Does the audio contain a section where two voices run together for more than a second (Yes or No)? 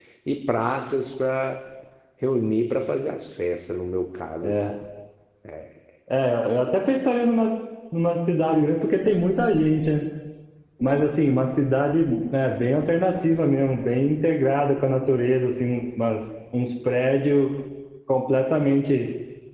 No